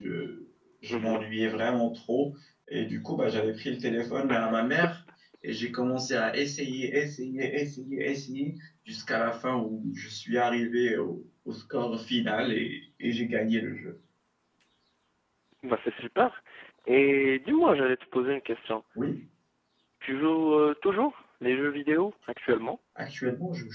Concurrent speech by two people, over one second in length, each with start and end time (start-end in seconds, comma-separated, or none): none